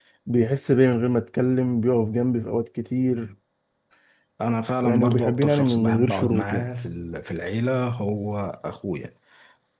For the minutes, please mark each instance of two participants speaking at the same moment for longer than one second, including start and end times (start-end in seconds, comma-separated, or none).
4.8-6.7